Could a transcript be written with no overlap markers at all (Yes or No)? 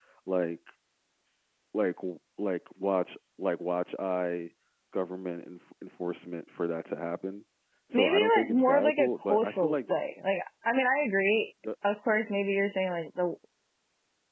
No